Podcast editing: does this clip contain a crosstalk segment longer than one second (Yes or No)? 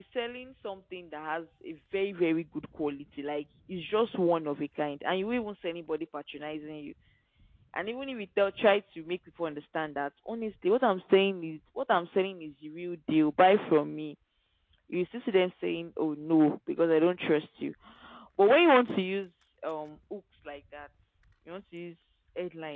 No